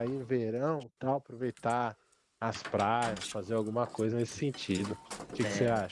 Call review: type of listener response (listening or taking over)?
taking over